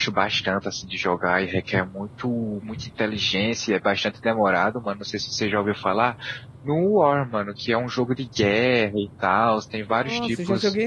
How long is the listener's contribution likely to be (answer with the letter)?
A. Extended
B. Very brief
A